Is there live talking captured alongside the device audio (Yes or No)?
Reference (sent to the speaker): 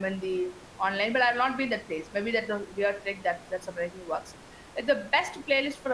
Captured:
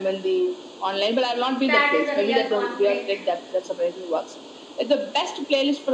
Yes